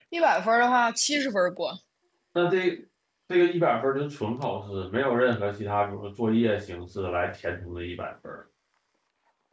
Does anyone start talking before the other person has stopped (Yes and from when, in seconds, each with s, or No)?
No